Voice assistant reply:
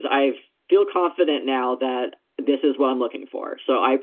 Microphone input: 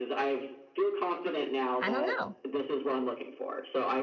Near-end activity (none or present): present